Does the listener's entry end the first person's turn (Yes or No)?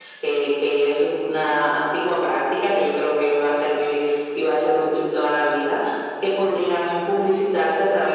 No